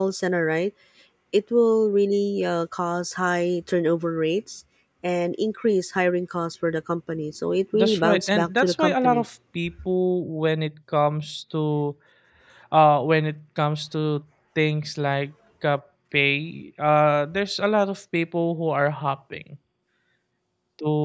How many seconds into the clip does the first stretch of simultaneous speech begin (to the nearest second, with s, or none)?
8 s